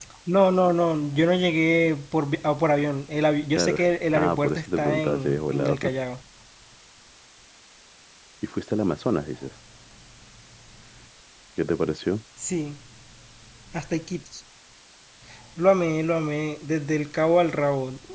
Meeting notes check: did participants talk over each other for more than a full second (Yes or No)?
Yes